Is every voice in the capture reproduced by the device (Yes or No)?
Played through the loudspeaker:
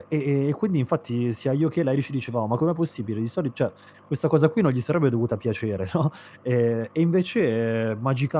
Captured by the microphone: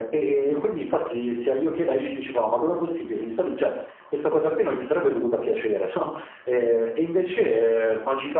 Yes